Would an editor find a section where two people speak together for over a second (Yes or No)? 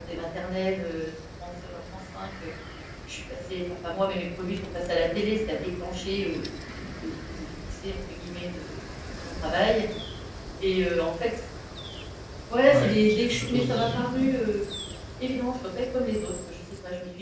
Yes